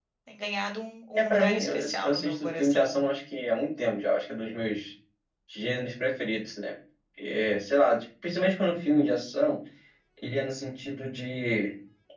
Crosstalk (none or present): present